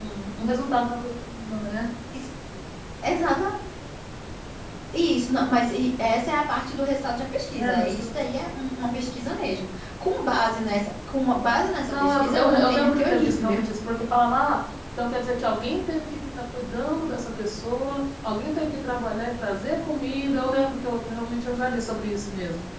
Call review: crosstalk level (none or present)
present